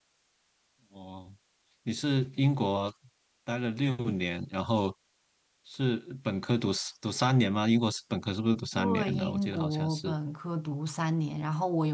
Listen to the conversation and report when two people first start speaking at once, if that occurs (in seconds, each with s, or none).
8.8 s